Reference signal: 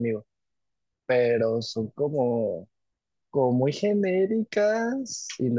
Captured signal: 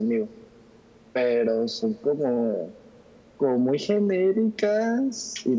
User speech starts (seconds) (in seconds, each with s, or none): none